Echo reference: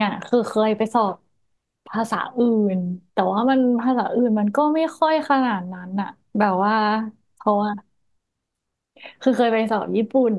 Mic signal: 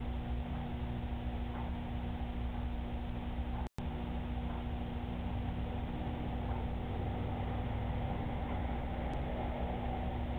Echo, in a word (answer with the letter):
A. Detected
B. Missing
B